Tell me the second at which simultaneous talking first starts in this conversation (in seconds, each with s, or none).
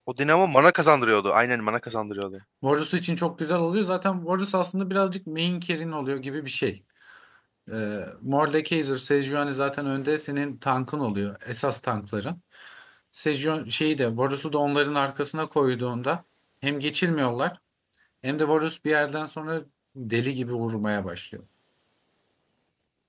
none